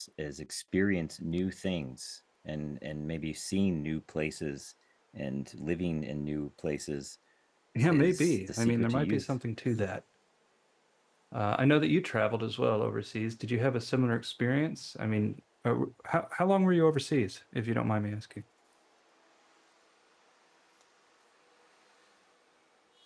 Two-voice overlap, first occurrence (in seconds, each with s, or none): 7.9 s